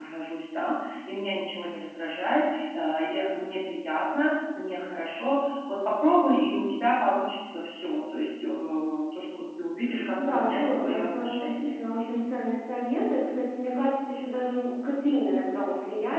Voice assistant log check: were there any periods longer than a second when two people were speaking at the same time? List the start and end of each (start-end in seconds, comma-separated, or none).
10.3-11.7